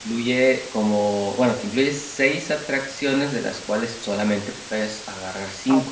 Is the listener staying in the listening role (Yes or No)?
No